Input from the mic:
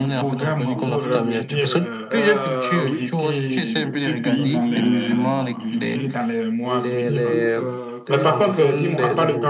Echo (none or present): present